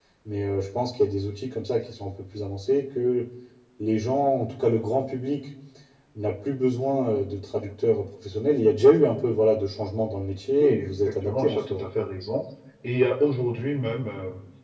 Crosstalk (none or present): present